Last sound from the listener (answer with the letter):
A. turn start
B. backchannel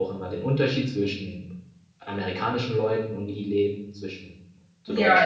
A